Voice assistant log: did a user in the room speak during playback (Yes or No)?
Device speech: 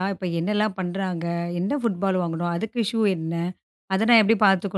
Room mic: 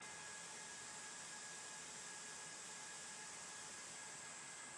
No